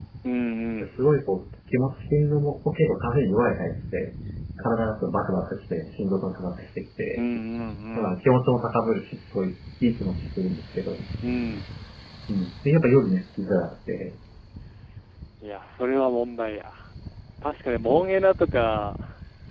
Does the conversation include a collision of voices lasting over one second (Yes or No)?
No